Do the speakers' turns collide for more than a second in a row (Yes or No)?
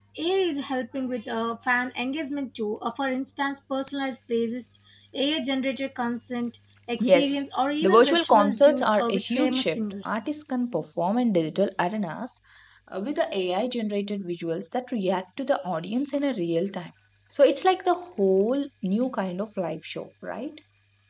Yes